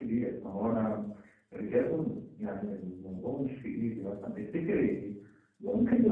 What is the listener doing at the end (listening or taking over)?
taking over